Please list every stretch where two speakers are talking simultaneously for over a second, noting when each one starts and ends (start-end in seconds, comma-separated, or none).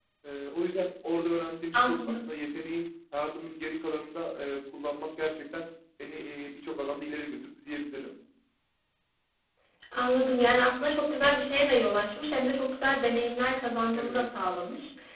none